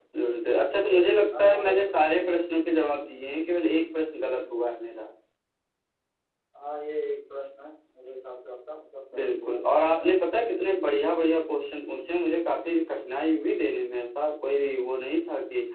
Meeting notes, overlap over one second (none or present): present